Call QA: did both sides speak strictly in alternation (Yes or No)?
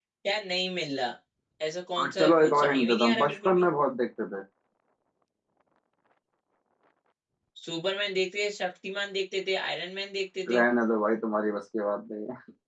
No